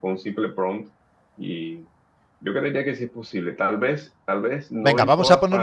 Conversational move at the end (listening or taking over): taking over